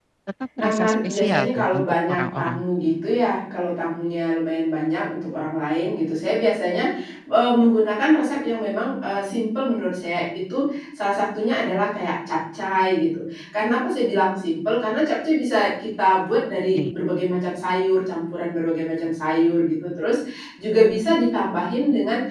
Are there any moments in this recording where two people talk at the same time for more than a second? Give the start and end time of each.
0.6-2.6

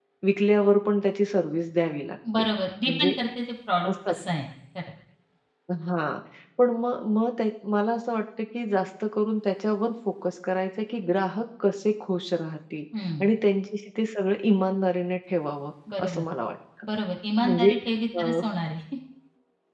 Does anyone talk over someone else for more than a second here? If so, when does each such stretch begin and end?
none

